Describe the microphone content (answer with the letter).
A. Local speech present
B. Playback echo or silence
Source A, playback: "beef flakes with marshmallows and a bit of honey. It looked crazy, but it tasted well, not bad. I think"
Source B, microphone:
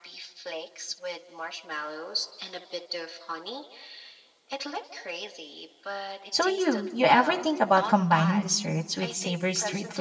A